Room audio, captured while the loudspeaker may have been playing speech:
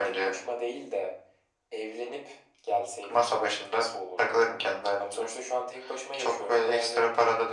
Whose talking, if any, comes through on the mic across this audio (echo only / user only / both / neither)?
echo only